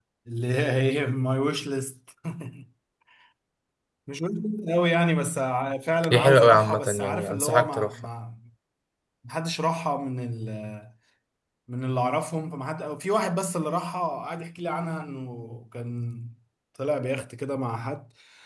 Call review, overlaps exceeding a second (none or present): present